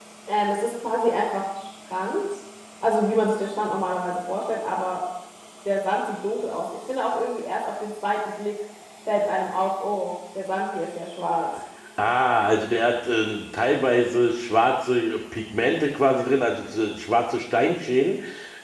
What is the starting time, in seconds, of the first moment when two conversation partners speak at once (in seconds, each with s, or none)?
none